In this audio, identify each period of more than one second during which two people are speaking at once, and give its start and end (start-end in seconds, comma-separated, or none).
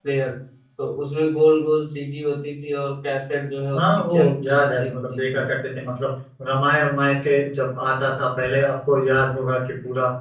3.8-5.4